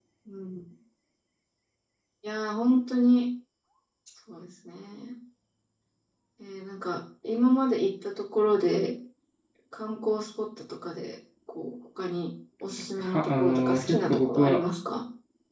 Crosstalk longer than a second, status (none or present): present